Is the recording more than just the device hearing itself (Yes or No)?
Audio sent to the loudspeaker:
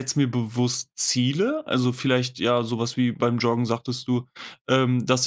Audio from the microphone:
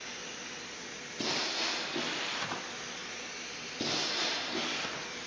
No